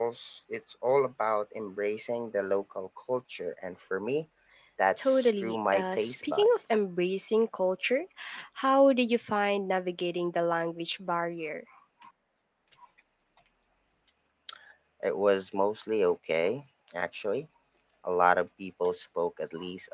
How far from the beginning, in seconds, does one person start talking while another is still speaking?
5.0 s

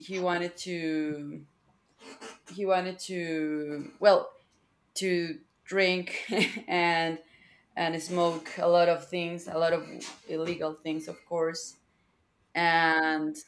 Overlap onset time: none

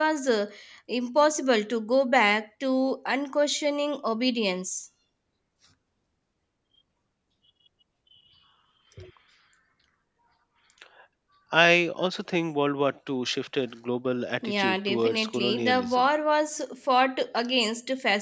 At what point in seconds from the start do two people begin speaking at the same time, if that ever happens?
14.4 s

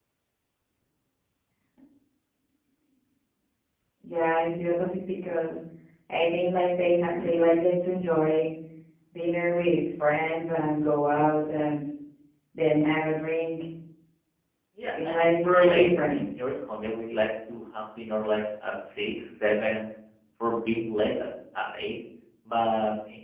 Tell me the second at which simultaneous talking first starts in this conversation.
14.9 s

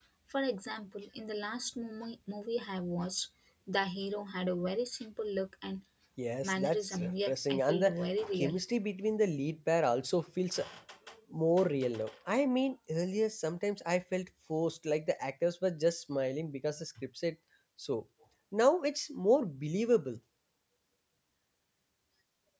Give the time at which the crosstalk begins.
6.4 s

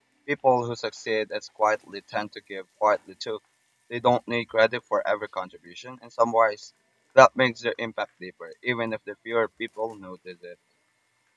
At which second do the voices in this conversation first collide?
none

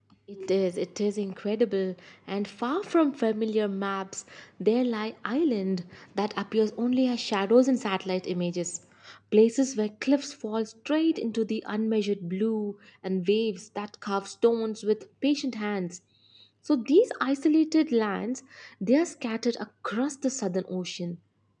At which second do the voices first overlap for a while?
none

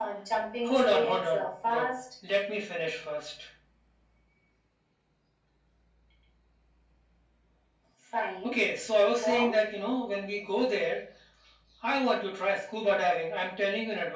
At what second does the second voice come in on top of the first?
0.6 s

